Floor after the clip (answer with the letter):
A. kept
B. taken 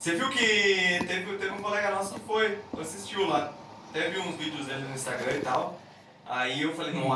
A